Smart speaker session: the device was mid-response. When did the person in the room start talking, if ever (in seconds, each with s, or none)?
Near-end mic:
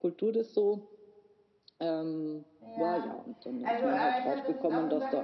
2.6 s